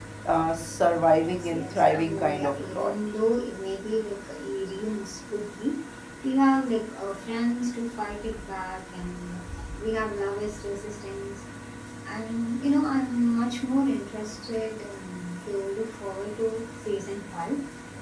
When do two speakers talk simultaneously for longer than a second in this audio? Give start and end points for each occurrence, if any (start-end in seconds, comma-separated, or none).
1.3-2.9